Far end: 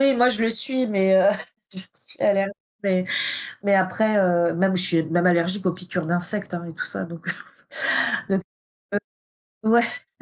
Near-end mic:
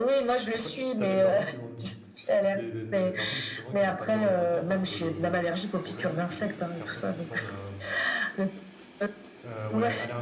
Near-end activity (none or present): present